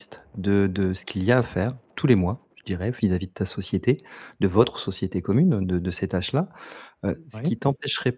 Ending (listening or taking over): listening